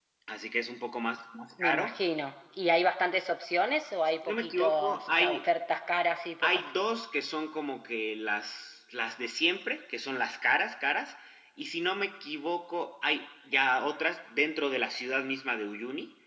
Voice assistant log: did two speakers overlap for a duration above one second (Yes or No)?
Yes